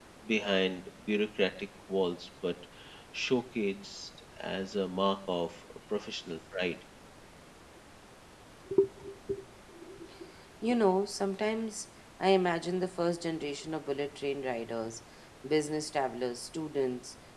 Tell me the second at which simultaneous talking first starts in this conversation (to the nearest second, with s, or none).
none